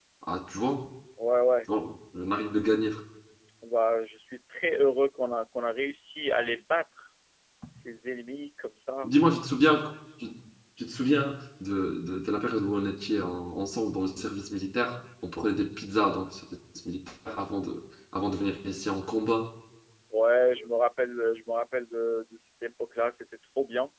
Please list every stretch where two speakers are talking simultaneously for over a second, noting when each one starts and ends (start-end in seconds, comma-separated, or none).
none